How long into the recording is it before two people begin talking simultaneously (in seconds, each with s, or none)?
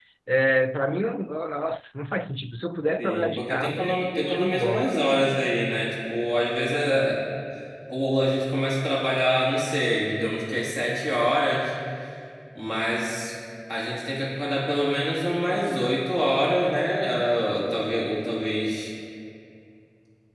3.0 s